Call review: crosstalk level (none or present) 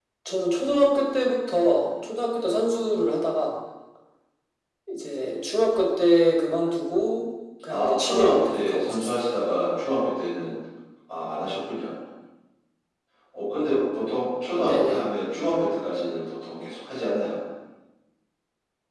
present